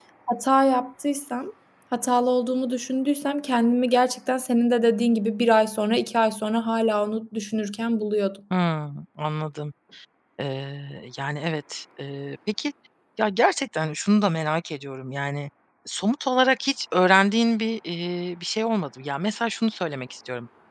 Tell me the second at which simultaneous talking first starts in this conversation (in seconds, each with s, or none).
none